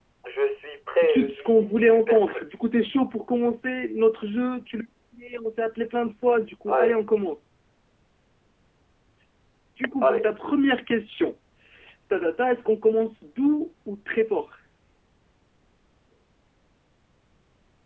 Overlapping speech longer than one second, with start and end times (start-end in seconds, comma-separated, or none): 1.0-2.4